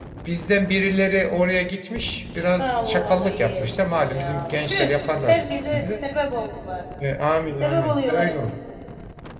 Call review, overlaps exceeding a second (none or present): present